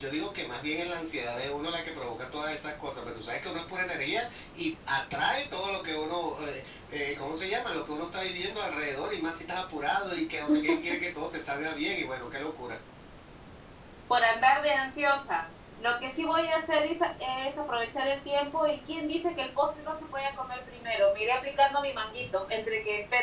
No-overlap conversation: Yes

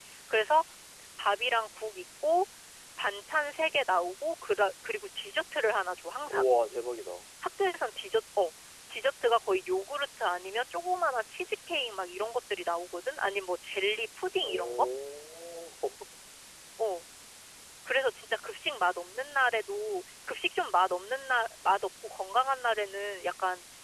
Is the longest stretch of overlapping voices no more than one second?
Yes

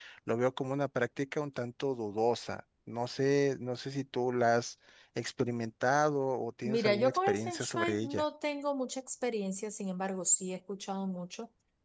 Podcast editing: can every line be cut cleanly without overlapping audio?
No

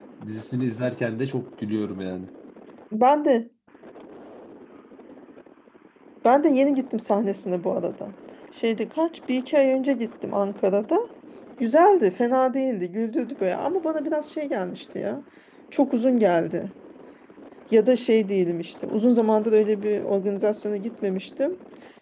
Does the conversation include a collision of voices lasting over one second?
No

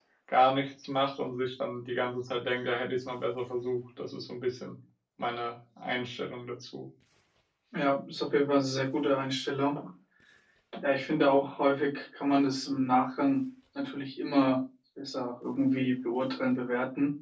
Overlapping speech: No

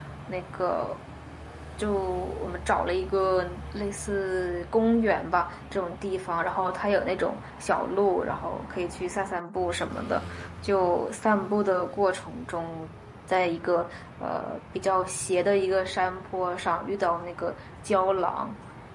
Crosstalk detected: No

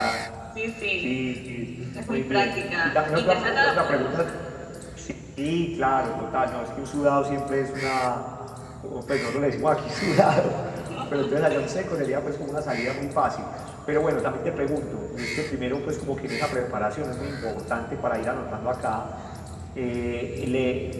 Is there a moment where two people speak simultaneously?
Yes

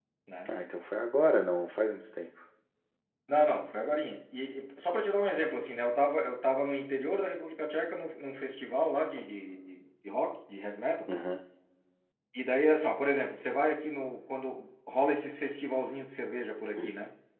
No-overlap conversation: Yes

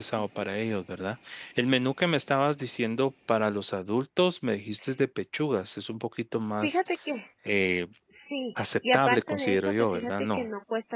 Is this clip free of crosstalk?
No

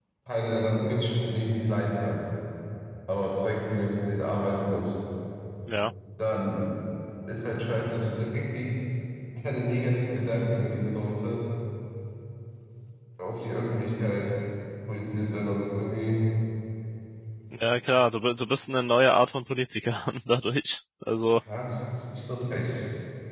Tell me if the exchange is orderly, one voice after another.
Yes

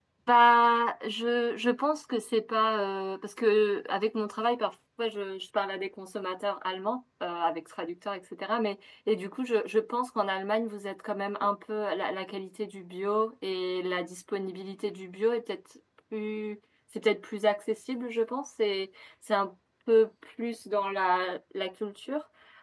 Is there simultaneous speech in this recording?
No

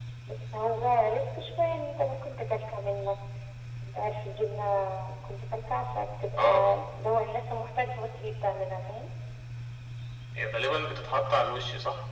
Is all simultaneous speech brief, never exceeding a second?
Yes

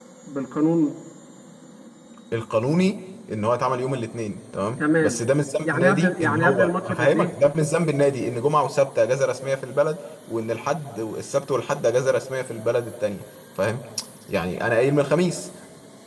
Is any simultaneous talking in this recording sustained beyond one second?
Yes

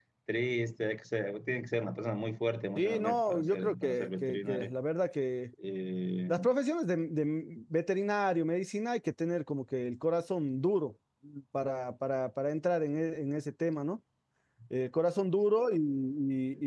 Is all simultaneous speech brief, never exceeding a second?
No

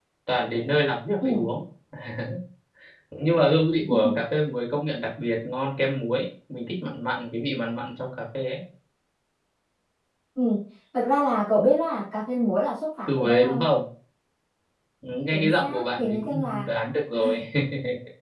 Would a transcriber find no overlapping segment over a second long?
No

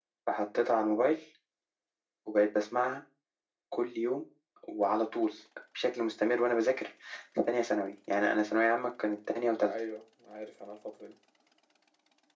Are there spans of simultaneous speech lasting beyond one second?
No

